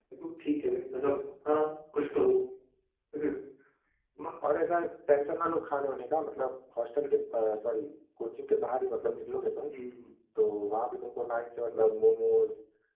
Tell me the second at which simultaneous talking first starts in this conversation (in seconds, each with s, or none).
none